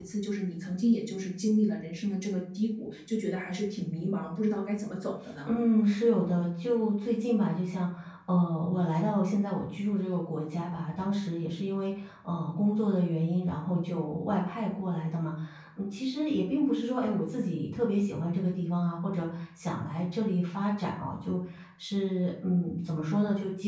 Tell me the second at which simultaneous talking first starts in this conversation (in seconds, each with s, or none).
none